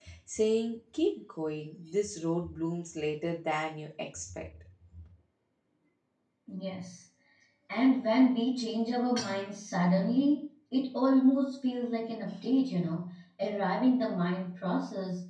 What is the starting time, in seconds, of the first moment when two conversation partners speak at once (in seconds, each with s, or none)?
none